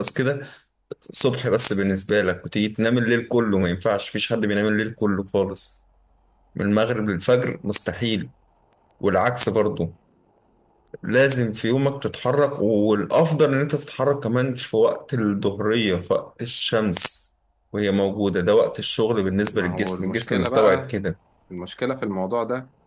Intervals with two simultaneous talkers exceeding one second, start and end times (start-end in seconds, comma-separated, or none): 19.5-20.9